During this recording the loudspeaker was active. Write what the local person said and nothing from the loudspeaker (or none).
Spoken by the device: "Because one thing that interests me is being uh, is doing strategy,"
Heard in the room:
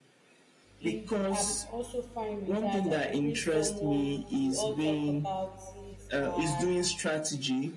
it, i'm also fine with that i could bring someone we all talk about it and